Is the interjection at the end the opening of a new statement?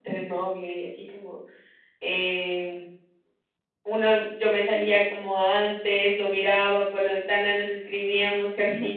No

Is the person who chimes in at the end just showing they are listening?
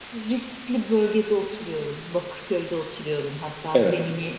Yes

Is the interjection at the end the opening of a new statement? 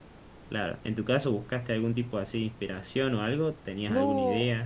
Yes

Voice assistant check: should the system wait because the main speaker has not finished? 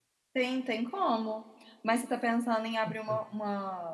Yes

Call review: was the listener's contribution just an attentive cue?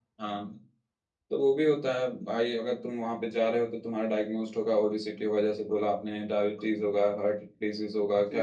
Yes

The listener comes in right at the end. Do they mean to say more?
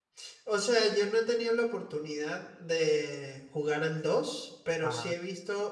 No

